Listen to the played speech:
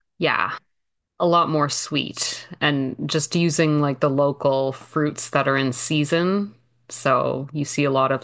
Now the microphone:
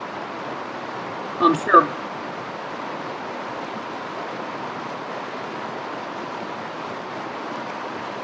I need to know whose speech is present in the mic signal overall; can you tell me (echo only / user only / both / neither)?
user only